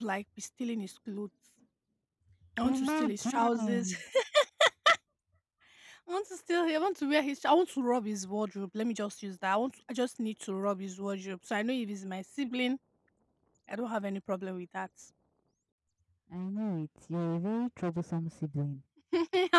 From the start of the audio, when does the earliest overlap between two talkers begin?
2.7 s

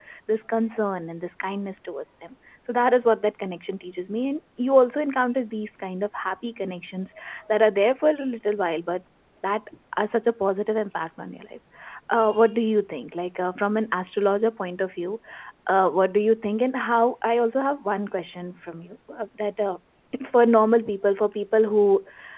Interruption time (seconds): none

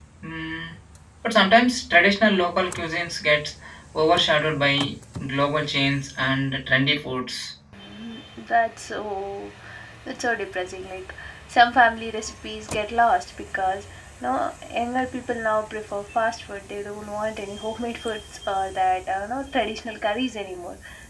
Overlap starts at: none

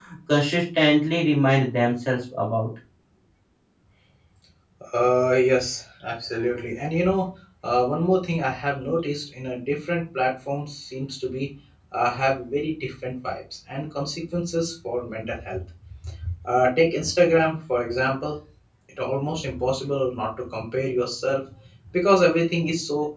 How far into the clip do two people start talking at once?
none

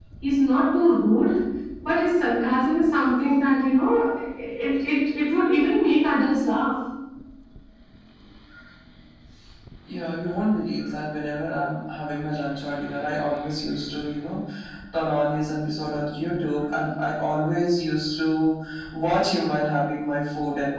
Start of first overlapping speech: none

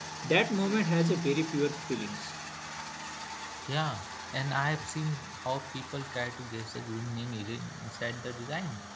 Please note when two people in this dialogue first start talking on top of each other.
none

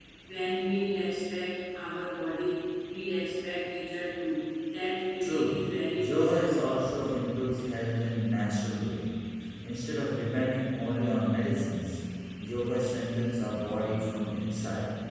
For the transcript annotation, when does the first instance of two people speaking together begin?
5.2 s

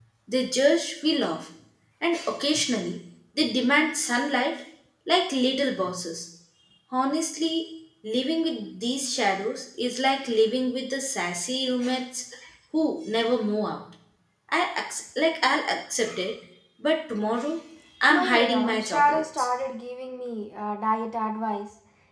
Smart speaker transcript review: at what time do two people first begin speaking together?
18.1 s

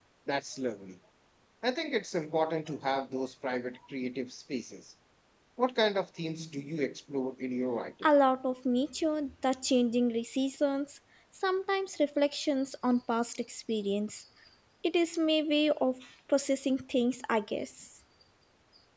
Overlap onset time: none

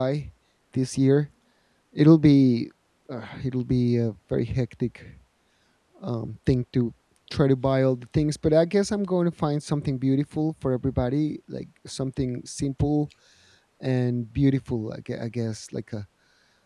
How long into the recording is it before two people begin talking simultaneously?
none

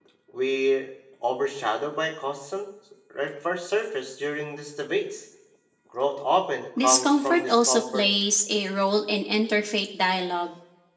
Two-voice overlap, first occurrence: 6.8 s

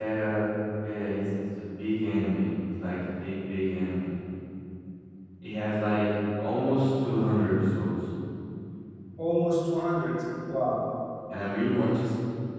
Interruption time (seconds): none

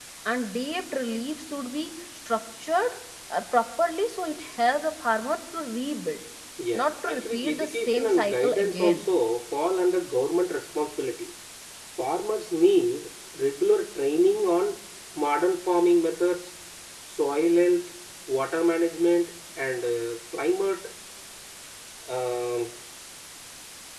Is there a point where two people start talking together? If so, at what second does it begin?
6.7 s

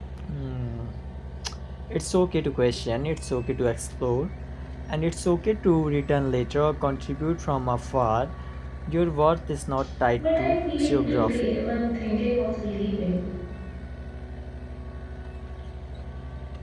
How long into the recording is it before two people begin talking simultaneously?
10.2 s

